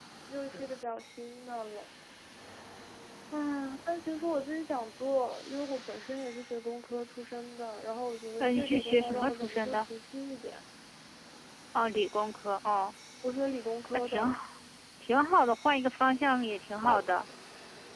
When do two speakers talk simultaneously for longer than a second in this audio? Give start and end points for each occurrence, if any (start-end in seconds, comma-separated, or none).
8.4-9.9